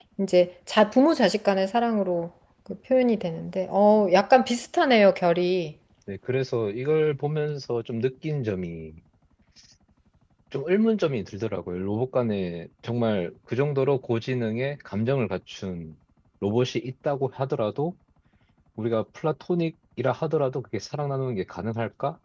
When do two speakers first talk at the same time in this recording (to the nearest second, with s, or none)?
none